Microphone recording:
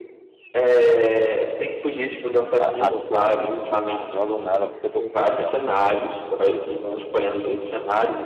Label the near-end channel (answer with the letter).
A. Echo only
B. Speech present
B